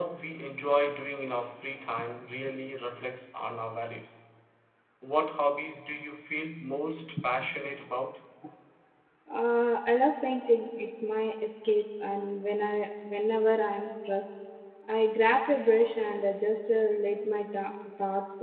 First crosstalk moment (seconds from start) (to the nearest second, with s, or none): none